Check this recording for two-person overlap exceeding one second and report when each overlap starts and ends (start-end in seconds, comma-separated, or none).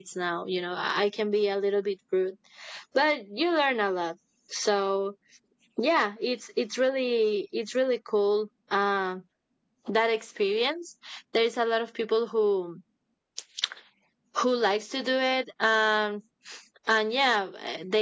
none